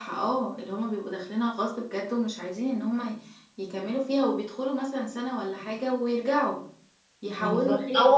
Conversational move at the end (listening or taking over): taking over